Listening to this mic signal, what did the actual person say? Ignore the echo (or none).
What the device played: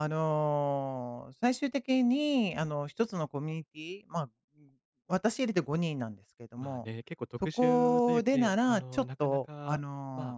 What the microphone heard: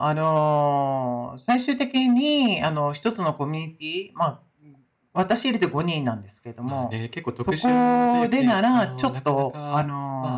none